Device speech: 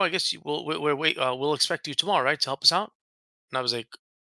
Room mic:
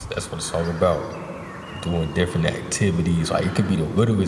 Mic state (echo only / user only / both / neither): user only